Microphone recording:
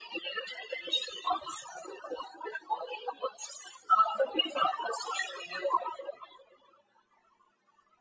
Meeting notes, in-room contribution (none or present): none